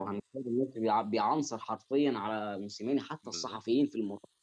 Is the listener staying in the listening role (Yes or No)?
Yes